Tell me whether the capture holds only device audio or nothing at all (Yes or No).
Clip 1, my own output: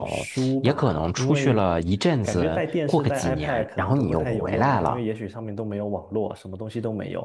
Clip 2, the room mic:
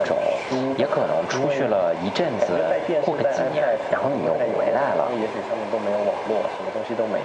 Yes